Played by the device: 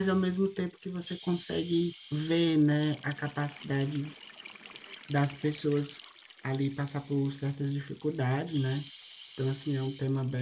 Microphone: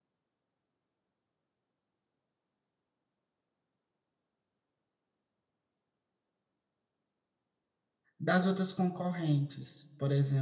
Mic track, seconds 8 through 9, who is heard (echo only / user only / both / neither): user only